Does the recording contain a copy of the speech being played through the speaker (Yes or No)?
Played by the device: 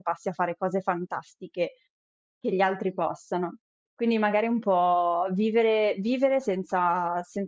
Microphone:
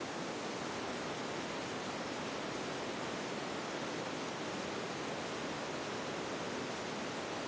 No